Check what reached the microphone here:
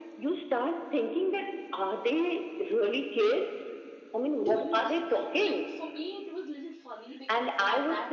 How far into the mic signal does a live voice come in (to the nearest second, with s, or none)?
4 s